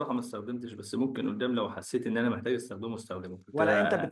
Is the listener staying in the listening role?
No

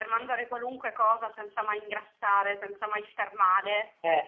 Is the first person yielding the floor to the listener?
No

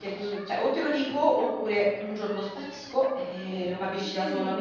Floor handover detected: No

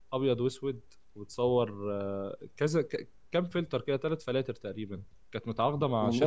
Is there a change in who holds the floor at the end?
No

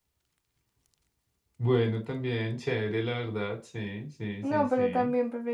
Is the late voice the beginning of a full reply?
Yes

